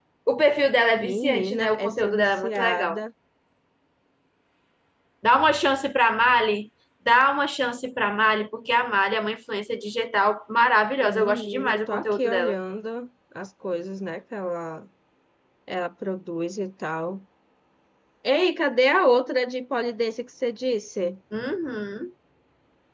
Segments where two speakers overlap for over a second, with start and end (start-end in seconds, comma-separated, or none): 1.0-3.0, 11.0-12.6